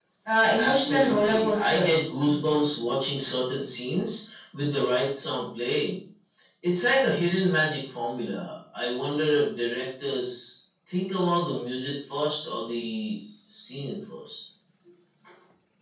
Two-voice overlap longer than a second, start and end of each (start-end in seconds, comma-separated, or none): 0.6-1.9